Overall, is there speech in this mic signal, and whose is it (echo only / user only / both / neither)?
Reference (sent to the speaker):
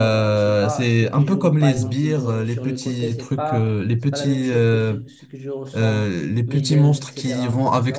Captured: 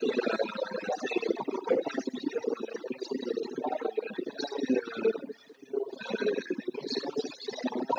echo only